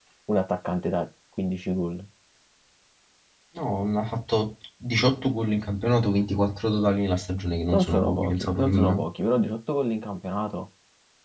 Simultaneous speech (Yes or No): Yes